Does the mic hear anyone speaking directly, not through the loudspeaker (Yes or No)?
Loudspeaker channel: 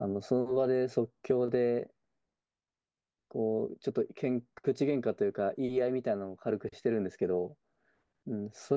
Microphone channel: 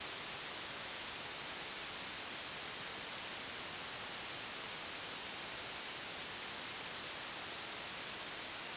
No